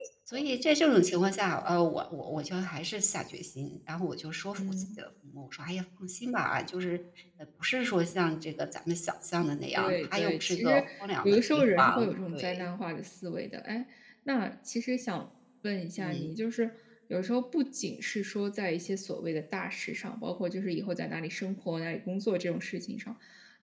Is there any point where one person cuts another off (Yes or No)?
Yes